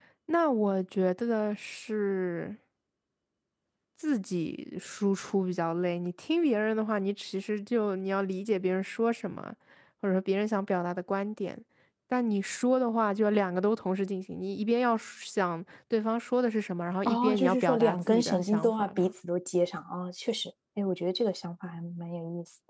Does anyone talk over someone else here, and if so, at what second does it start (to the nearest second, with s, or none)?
17 s